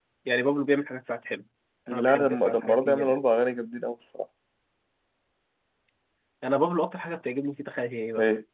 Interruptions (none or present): present